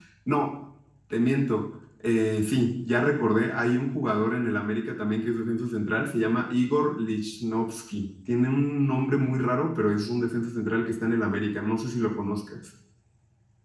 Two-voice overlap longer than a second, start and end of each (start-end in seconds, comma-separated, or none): none